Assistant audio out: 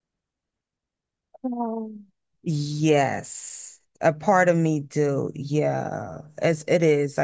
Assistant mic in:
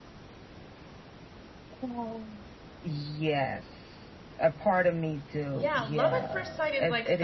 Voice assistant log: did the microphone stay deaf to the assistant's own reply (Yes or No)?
No